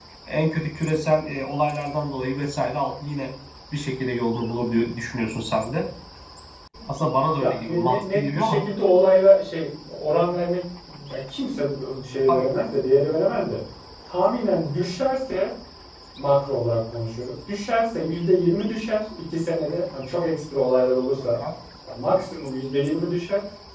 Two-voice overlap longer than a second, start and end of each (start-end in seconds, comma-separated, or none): 7.4-8.6